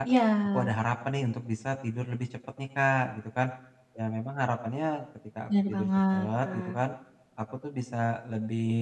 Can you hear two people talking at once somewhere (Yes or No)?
Yes